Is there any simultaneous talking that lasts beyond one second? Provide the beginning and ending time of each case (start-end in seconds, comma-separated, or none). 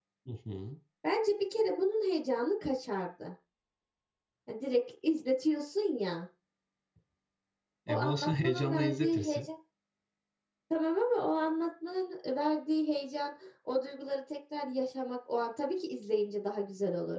7.9-9.5